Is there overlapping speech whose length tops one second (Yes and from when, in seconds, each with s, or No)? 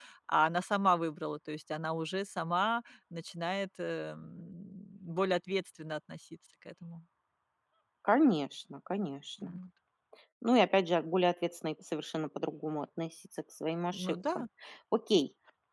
No